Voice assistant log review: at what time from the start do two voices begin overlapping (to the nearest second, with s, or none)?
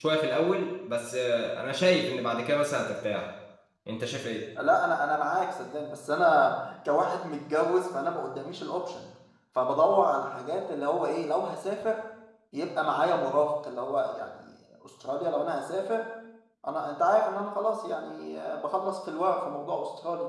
none